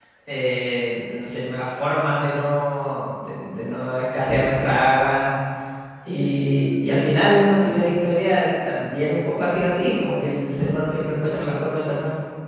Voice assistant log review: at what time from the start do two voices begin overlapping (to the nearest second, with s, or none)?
none